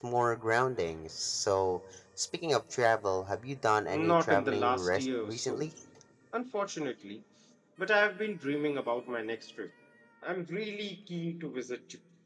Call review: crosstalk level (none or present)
present